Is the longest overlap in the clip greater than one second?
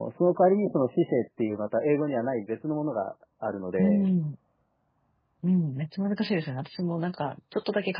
No

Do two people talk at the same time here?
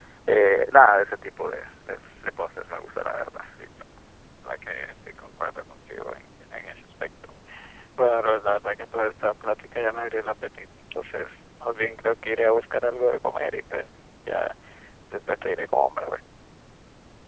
No

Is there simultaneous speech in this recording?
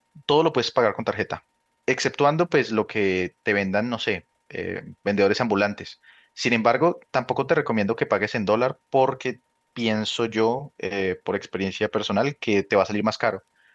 No

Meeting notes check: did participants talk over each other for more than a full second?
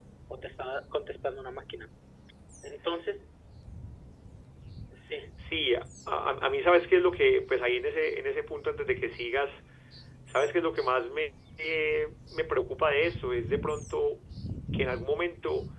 No

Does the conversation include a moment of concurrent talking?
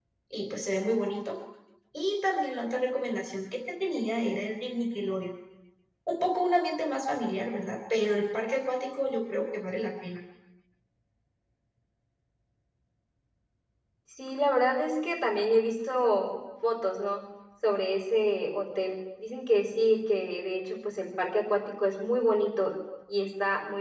No

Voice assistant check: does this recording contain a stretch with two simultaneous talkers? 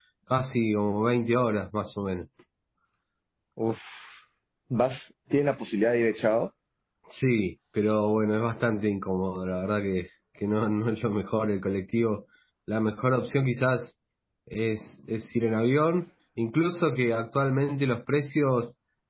No

